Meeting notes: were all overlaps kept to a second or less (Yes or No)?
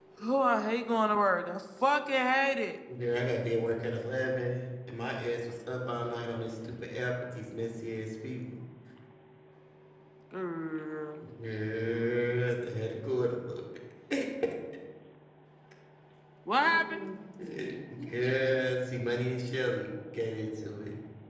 Yes